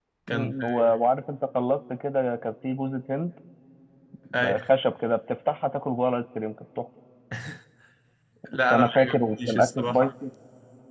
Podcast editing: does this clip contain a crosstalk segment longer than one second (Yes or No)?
Yes